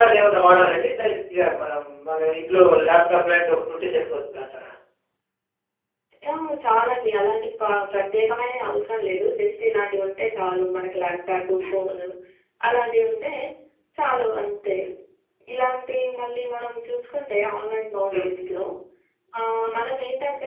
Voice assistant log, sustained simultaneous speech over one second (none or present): none